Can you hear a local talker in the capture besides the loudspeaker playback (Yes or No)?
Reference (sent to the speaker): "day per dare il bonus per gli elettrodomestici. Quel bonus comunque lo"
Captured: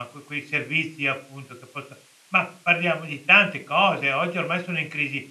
Yes